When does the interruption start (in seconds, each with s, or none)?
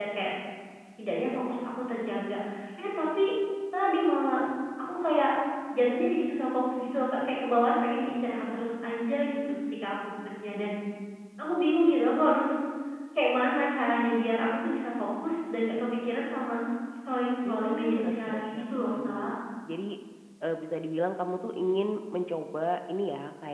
17.4 s